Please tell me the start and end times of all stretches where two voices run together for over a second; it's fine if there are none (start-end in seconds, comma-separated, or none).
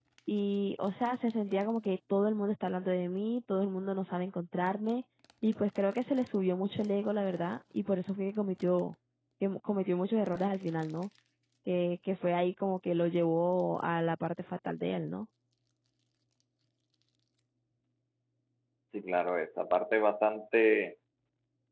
none